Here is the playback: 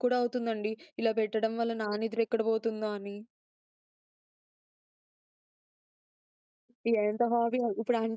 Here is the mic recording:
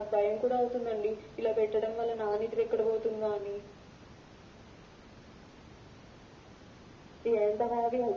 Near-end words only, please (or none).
none